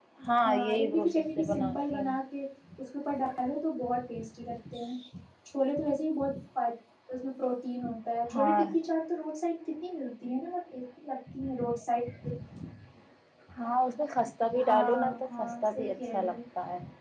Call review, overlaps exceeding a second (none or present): present